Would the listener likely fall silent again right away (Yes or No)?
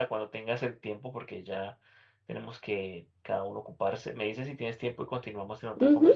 No